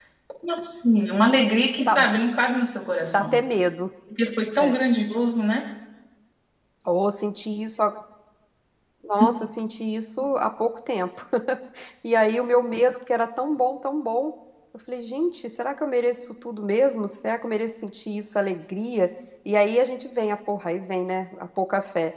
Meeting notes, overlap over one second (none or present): none